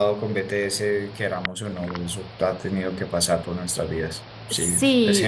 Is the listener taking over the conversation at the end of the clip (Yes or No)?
Yes